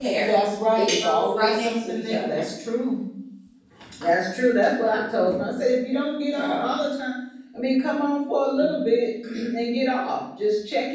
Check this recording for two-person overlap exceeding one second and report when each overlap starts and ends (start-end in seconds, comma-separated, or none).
0.8-2.4